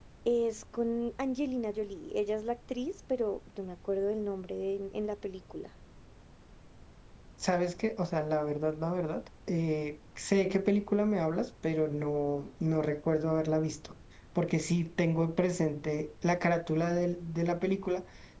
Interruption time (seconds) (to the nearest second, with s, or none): none